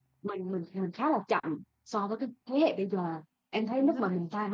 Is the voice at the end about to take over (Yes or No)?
No